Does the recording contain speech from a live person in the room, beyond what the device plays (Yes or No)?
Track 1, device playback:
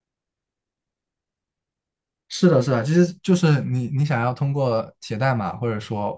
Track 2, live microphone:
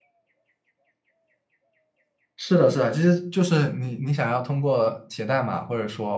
No